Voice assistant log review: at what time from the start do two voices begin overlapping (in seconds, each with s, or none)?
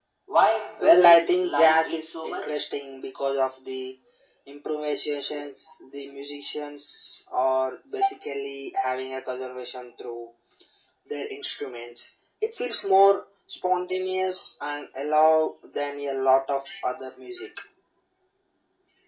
0.8 s